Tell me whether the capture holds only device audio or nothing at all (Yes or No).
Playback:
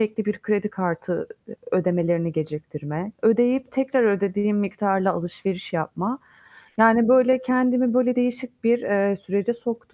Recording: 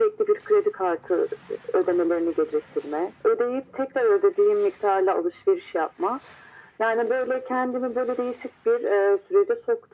Yes